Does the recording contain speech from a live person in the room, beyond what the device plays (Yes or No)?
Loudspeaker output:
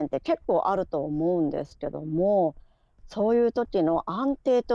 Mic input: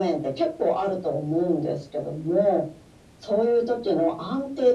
No